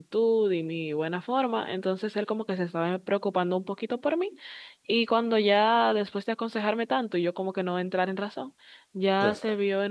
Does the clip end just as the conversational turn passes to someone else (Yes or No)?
No